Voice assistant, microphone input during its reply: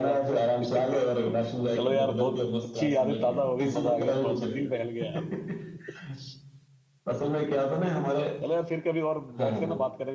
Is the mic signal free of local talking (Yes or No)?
No